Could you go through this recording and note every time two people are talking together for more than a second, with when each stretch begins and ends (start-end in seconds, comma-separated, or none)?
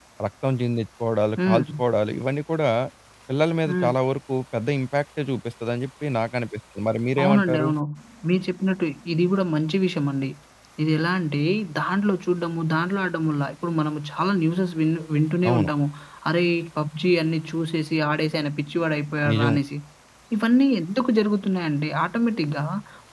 none